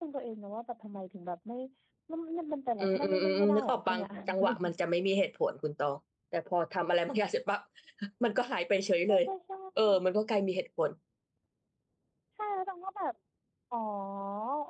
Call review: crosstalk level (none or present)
present